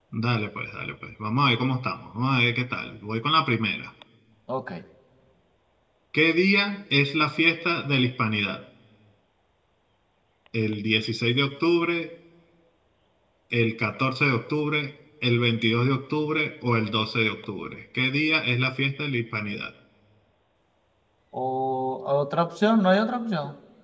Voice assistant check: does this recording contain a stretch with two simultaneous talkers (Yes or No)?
No